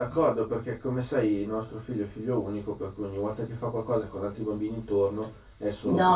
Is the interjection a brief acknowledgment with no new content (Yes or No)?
No